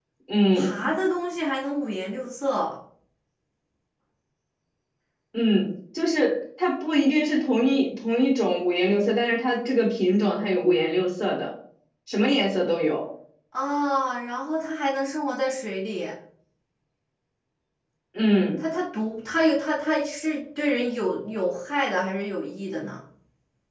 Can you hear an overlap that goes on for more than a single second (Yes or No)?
No